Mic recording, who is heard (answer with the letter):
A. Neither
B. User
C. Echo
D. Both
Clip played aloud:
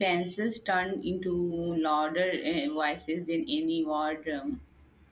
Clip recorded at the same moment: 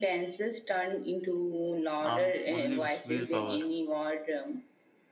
D